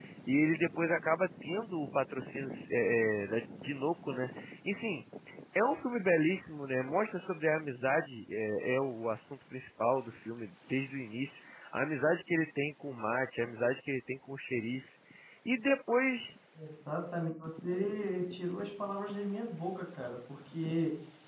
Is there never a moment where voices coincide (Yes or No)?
Yes